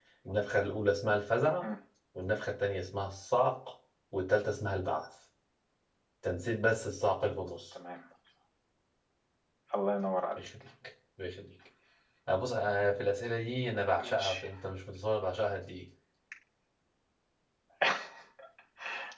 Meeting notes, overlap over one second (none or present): none